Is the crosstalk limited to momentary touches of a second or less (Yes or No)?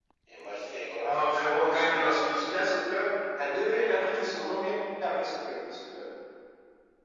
No